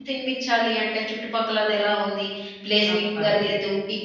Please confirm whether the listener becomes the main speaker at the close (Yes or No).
No